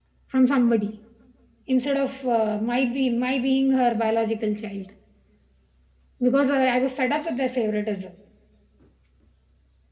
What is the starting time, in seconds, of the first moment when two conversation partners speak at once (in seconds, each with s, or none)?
none